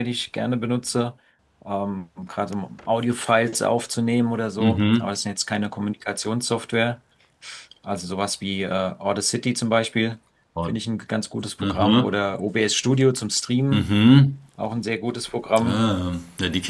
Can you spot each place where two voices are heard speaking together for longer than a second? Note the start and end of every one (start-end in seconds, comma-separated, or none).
none